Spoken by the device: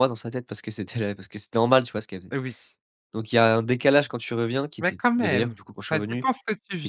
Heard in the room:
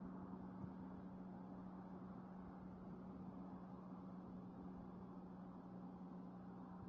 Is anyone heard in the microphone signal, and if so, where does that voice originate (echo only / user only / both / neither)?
neither